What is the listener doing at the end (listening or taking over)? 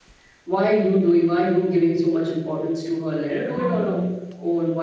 listening